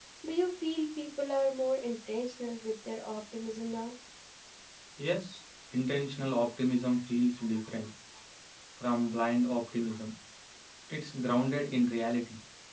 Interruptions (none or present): none